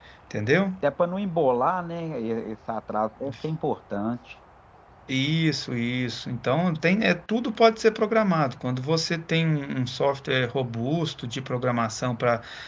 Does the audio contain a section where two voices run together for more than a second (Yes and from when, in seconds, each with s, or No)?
No